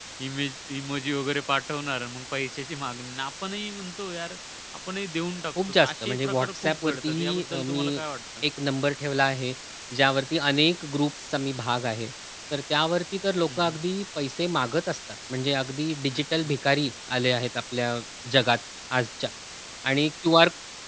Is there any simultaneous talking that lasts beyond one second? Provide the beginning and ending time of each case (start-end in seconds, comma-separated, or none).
5.7-8.0